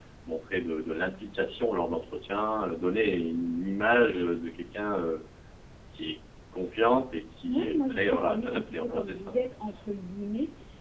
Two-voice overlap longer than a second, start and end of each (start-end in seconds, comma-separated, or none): 7.5-9.3